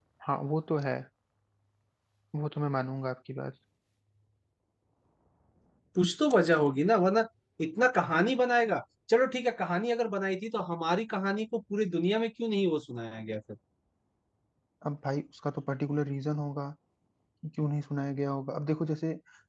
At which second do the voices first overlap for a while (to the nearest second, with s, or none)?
none